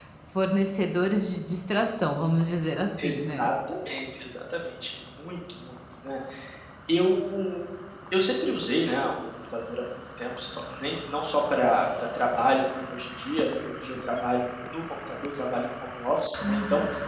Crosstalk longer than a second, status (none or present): none